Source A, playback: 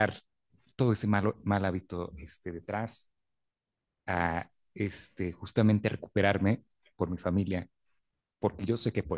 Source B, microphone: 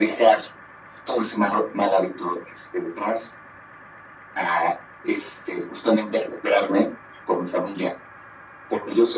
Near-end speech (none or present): none